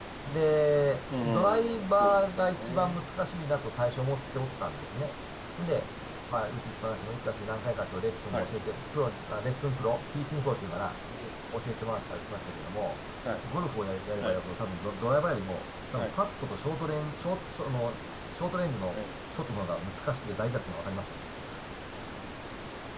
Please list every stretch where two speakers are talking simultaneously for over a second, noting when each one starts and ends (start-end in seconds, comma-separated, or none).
1.2-3.0